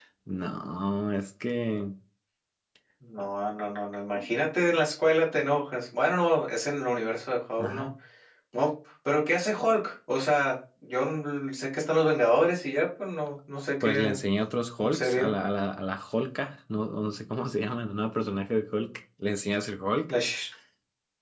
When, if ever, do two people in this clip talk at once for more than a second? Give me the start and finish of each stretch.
none

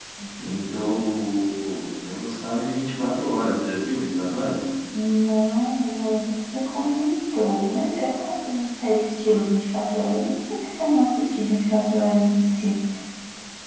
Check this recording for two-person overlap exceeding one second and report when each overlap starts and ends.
none

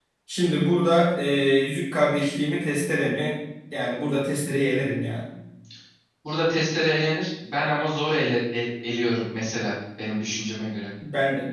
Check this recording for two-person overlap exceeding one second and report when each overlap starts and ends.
none

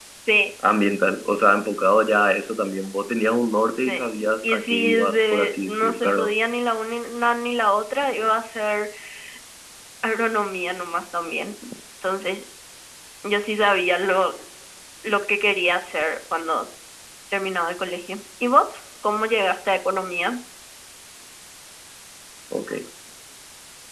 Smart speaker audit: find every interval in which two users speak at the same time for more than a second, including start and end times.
4.4-6.3

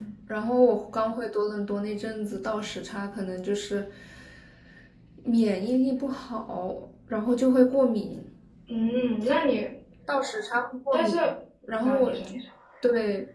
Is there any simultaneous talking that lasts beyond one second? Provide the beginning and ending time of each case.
none

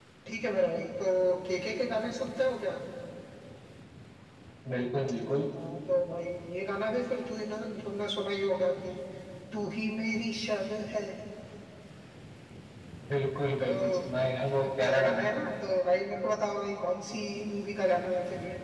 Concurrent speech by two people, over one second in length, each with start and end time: none

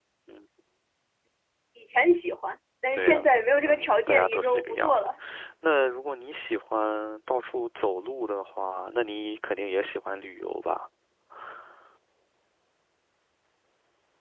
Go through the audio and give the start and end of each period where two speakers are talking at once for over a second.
2.9-5.1

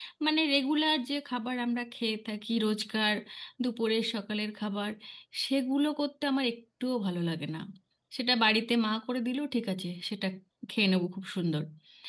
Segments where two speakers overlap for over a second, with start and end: none

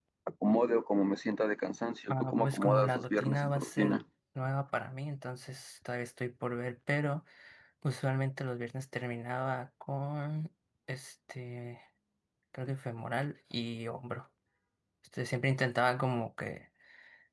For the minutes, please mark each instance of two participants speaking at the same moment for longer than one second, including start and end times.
2.1-4.0

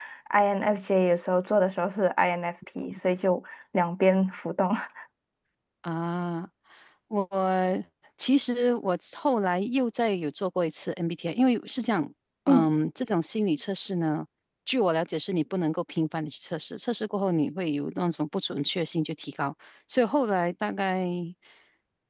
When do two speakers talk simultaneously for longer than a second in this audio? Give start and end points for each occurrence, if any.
none

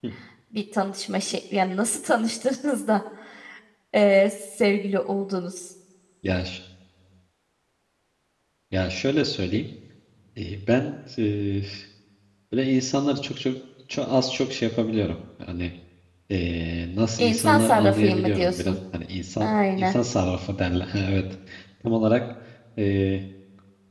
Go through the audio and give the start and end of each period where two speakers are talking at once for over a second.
17.2-18.8

